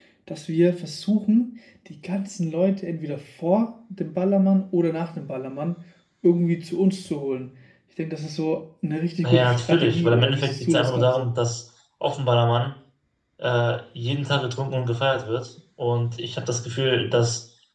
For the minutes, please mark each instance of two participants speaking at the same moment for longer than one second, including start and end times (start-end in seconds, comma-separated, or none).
9.2-11.3